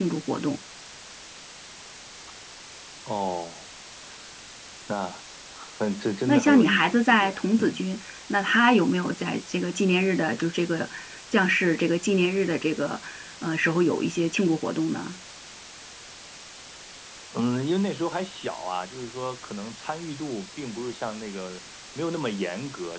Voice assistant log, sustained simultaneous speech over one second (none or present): present